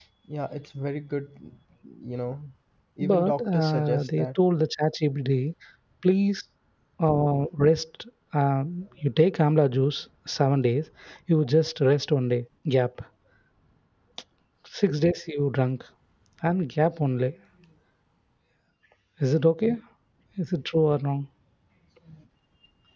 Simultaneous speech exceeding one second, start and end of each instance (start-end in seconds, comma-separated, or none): 3.0-4.3